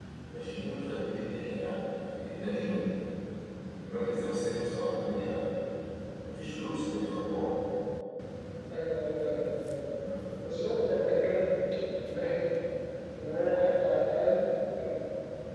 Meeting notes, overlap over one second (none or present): none